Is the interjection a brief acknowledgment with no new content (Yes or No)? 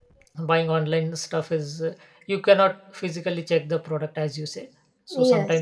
Yes